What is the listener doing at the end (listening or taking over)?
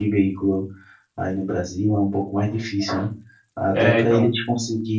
listening